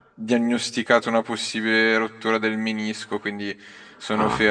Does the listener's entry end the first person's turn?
No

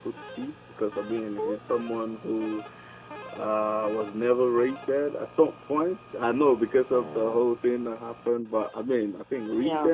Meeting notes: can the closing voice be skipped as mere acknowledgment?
Yes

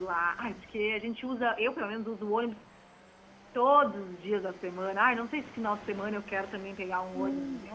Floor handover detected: Yes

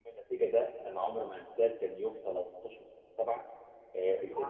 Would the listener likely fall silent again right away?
Yes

